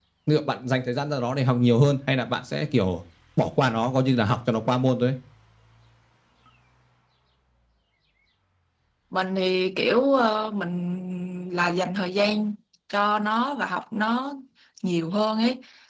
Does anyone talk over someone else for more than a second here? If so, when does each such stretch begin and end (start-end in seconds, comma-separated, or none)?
none